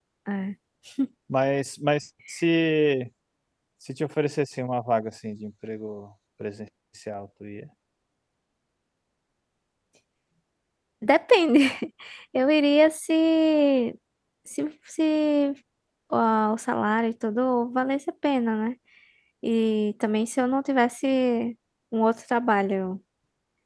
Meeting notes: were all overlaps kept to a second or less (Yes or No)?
Yes